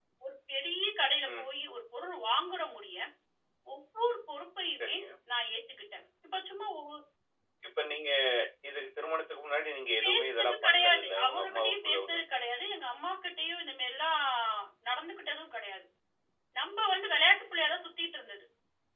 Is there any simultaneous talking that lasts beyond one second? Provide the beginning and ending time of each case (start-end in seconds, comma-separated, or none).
10.0-12.3